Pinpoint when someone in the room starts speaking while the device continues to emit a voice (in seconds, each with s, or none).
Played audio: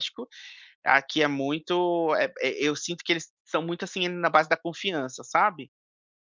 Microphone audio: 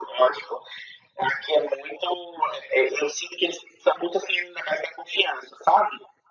none